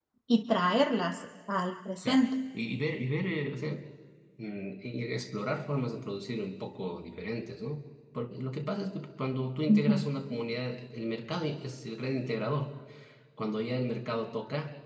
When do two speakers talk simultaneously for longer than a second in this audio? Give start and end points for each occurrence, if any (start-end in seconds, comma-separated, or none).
none